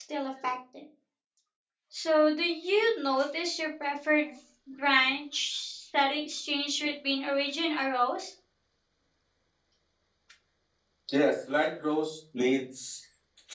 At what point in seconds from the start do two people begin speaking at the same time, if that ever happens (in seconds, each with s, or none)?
none